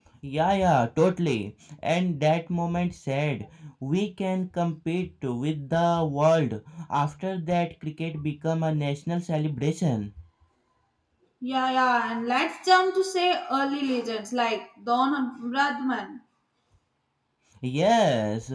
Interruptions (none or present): none